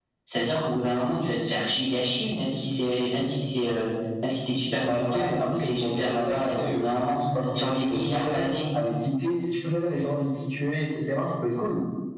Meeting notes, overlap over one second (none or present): present